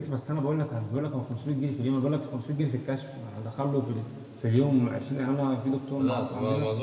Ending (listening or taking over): taking over